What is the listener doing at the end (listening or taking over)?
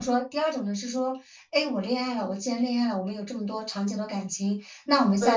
listening